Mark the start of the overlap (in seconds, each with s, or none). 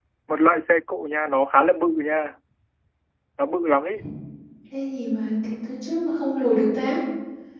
none